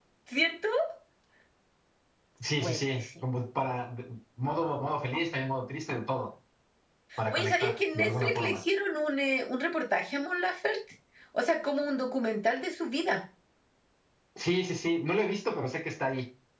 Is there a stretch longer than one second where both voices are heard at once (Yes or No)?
Yes